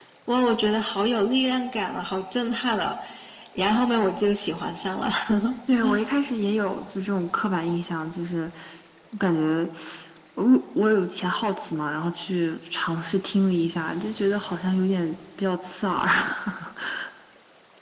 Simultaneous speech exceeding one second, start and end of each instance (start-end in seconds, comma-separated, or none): none